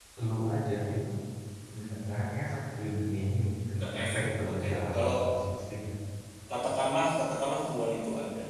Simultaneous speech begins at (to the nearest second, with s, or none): 4 s